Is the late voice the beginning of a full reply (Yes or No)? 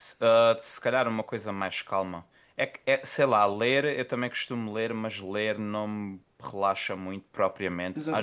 Yes